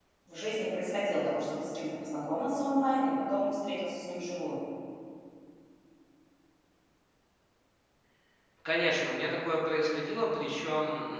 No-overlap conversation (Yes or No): Yes